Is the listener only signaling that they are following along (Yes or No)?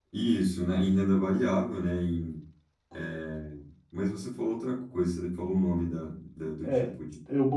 No